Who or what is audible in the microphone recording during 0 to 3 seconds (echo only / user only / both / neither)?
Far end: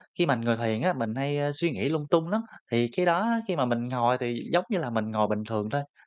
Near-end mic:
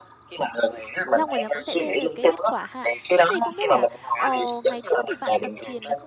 both